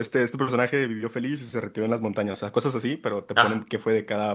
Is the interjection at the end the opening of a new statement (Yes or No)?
No